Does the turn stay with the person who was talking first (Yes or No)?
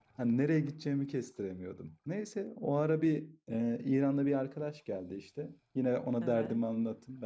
Yes